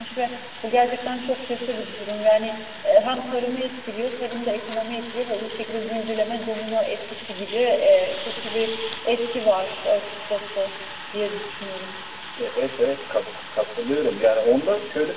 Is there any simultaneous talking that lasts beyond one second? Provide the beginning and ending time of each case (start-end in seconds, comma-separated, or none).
none